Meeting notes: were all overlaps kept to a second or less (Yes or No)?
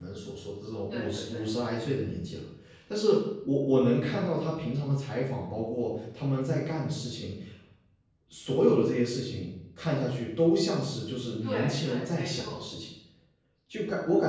No